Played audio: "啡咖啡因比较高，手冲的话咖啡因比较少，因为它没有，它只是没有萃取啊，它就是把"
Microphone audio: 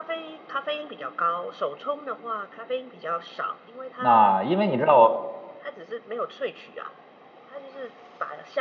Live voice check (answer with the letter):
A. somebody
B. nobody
A